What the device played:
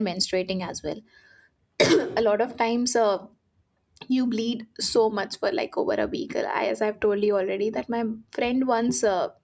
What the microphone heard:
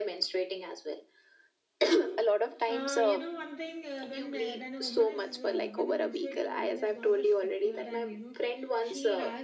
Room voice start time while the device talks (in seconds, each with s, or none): 2.6 s